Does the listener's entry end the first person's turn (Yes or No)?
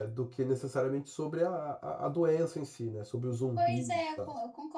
Yes